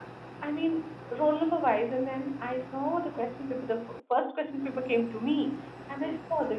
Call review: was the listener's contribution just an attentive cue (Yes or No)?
Yes